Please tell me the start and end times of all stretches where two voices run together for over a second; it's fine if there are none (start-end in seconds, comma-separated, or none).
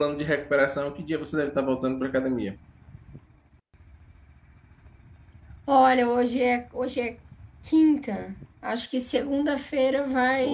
none